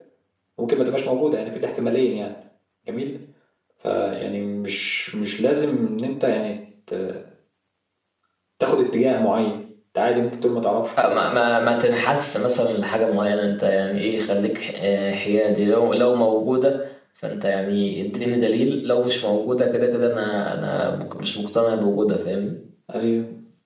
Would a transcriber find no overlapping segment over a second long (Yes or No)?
Yes